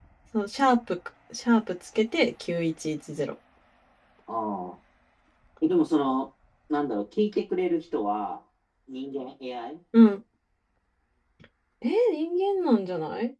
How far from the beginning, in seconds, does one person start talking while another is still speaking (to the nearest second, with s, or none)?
none